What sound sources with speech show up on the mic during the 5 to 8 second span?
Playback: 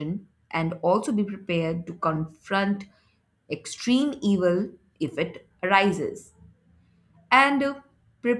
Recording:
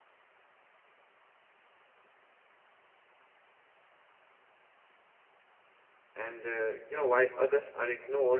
user only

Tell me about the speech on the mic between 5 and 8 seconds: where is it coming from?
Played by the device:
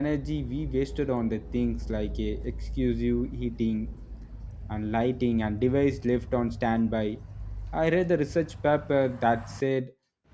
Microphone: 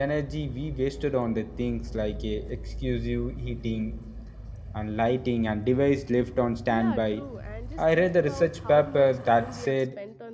both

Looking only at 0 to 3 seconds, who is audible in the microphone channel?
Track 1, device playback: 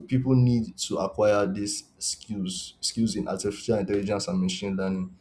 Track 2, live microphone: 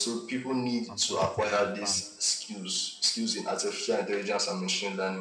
both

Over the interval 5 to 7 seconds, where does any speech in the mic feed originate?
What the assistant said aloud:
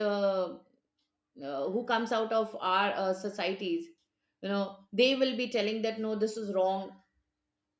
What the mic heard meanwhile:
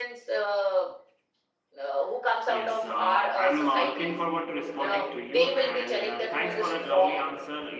both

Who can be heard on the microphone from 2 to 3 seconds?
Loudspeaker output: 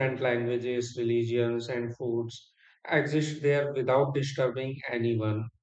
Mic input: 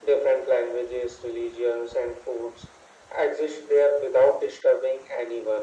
echo only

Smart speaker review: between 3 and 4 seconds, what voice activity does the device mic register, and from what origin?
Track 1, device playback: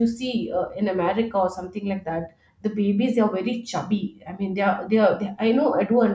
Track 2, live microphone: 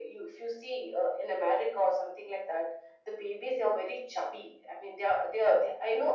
echo only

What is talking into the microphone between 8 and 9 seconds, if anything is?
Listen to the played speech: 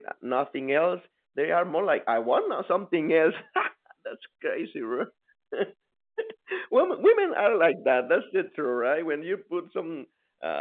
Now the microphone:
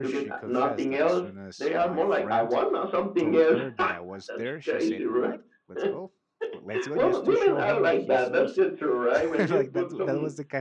both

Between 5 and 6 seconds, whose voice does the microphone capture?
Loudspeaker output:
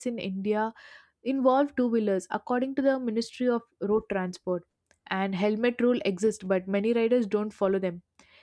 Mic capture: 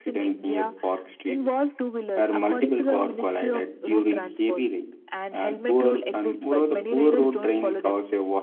both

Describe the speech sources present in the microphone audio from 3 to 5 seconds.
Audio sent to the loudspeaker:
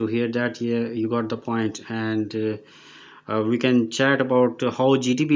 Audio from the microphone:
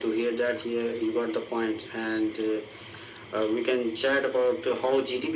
echo only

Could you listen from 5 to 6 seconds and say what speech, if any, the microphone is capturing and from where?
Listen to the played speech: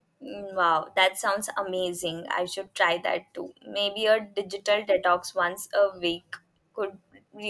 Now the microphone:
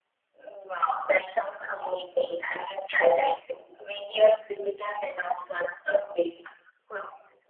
echo only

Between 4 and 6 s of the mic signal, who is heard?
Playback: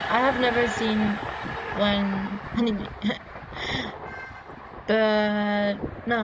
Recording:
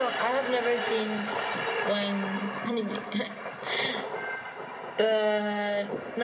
echo only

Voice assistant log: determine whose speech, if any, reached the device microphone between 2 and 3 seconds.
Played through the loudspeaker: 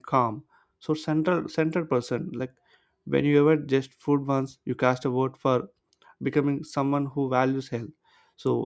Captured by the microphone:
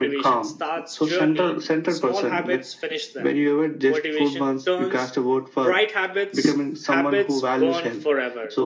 both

